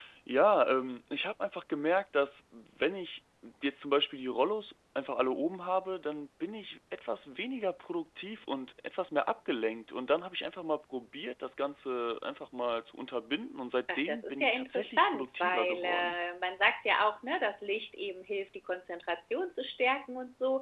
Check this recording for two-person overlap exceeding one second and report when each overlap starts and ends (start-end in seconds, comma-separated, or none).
13.9-16.2